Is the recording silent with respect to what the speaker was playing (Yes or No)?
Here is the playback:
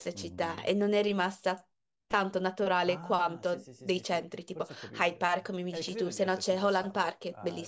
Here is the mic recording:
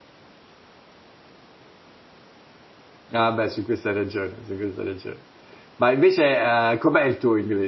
Yes